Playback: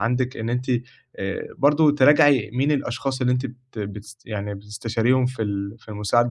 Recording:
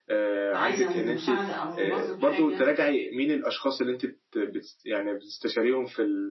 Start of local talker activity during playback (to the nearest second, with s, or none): 1 s